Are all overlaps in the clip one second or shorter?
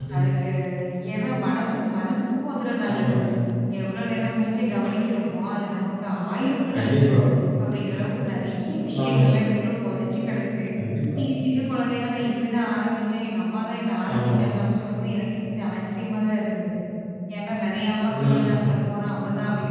Yes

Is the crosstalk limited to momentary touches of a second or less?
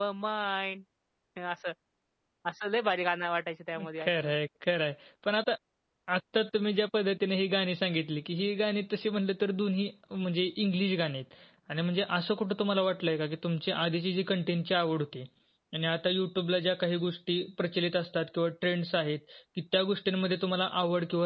Yes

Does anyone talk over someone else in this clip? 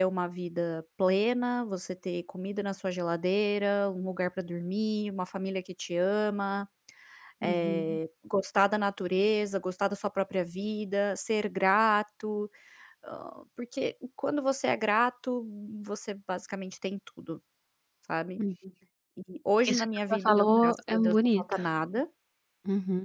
Yes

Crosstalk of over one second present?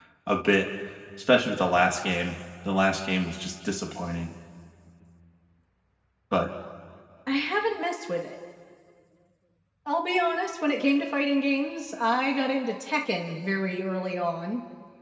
No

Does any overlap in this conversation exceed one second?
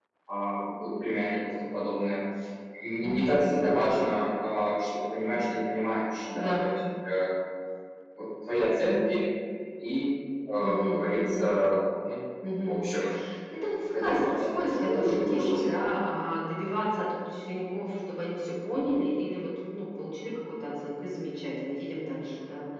Yes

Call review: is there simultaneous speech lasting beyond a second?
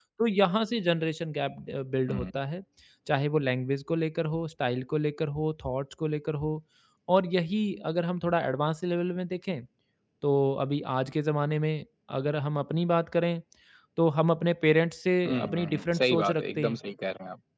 Yes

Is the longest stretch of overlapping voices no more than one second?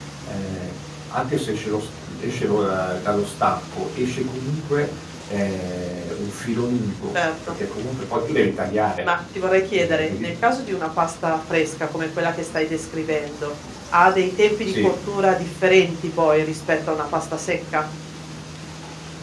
Yes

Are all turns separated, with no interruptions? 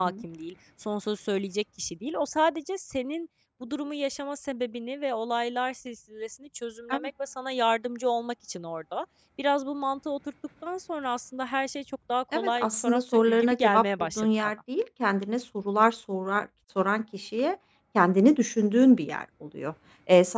No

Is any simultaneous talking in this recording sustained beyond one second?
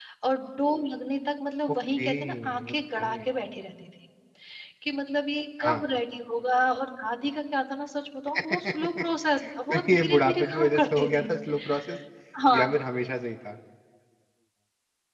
Yes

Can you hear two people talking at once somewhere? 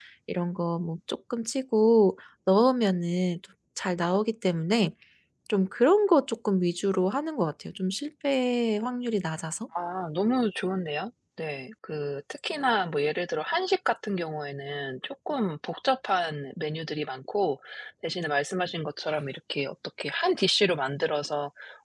No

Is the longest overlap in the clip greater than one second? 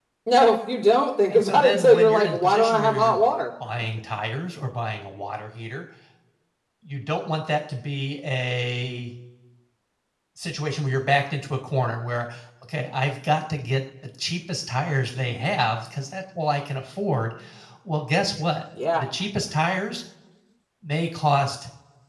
Yes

